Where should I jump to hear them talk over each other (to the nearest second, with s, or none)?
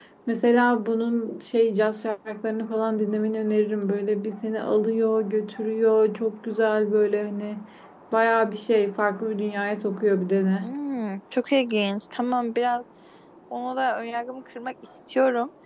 none